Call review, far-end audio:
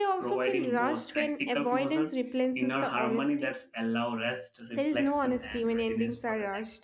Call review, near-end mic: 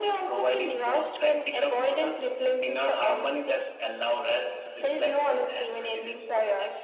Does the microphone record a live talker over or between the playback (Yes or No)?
No